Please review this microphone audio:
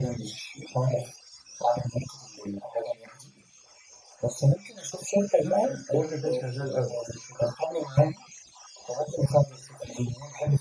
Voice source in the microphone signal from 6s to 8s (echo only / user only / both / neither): both